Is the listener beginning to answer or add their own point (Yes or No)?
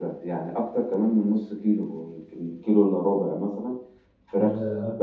No